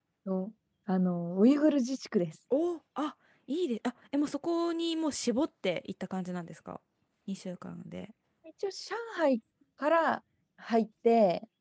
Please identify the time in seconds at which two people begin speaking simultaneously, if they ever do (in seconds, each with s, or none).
none